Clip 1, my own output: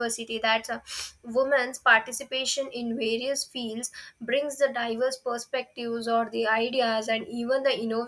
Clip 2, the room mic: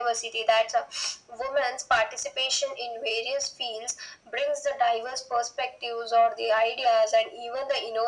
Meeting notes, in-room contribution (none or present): none